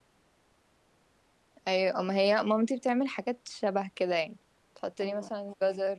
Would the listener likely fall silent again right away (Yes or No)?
Yes